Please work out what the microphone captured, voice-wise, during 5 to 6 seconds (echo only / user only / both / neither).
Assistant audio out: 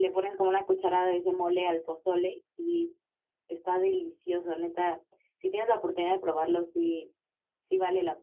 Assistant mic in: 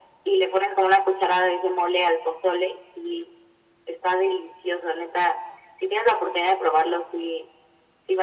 echo only